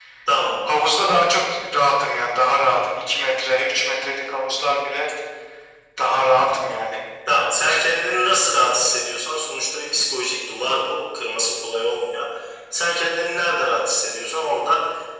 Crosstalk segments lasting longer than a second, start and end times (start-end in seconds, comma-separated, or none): none